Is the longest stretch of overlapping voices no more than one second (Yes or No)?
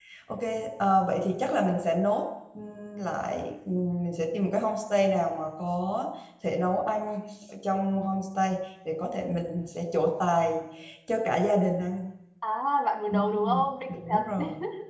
No